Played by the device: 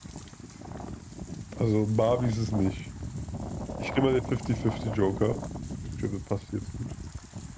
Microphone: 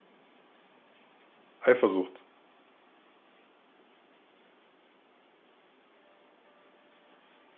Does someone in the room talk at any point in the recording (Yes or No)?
Yes